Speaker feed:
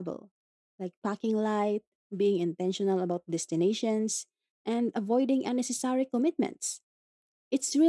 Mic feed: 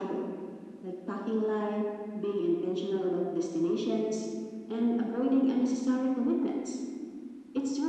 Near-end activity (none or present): none